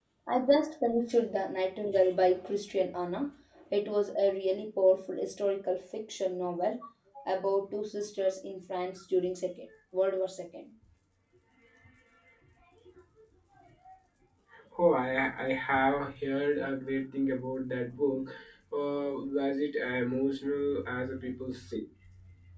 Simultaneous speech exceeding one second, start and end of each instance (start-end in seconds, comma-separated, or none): none